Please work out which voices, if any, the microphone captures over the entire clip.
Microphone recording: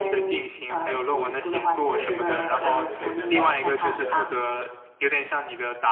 both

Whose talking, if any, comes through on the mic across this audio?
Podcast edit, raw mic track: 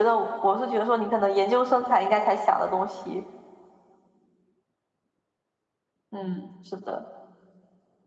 echo only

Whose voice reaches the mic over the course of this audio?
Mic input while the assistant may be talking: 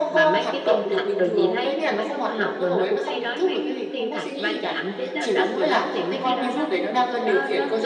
both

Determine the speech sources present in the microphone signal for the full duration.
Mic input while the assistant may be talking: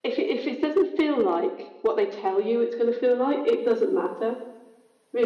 echo only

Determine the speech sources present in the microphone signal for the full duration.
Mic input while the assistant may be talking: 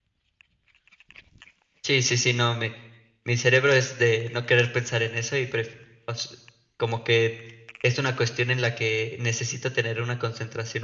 user only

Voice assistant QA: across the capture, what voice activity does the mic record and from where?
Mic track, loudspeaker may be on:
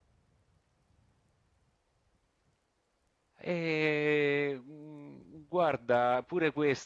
user only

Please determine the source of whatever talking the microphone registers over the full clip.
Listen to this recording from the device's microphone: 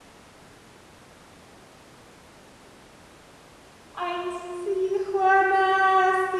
user only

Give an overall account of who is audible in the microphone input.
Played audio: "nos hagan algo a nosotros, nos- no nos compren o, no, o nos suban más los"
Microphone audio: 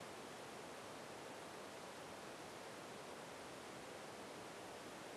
neither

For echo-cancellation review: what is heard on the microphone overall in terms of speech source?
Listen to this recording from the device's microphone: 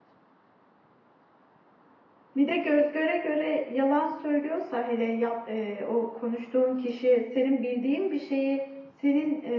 user only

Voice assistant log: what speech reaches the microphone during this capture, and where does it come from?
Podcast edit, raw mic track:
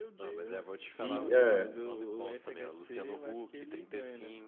both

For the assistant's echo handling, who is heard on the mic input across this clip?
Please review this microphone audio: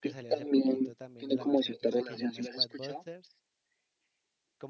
both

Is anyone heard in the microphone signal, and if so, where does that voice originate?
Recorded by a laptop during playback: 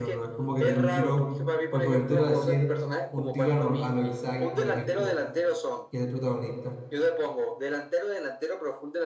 both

